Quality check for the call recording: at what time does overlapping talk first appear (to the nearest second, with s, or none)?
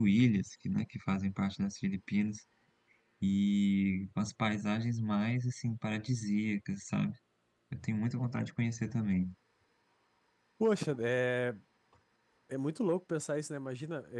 none